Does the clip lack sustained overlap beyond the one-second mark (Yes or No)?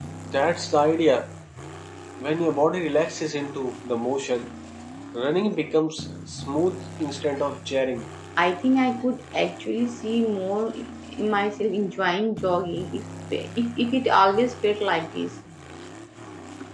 Yes